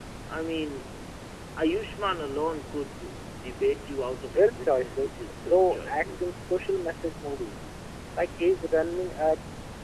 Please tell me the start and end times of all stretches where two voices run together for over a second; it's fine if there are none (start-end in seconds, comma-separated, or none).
4.3-6.5